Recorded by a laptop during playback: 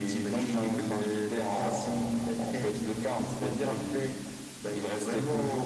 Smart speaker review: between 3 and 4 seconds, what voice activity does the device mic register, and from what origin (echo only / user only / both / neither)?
echo only